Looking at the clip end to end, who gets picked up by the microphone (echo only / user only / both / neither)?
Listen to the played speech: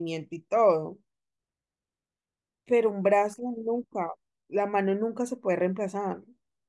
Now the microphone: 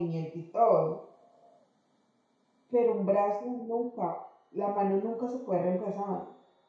echo only